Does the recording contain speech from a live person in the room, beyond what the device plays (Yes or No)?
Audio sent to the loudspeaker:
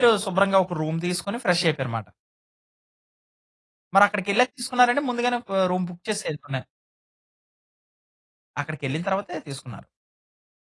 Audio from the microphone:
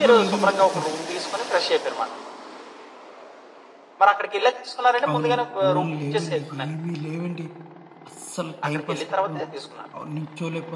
Yes